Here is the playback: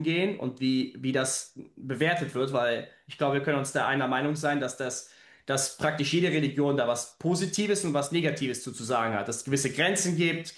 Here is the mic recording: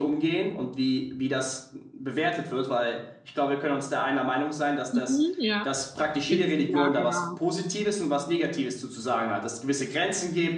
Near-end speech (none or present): present